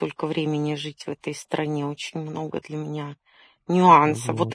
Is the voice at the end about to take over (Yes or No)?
No